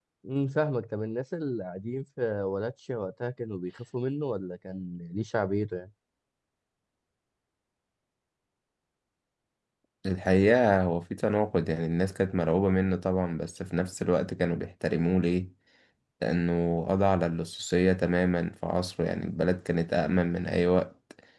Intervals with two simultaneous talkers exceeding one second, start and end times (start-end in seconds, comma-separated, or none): none